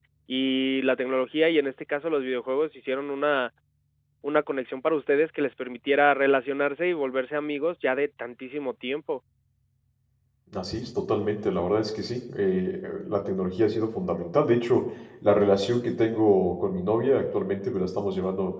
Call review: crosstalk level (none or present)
none